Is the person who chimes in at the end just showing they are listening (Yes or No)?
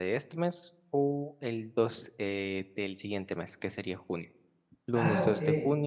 Yes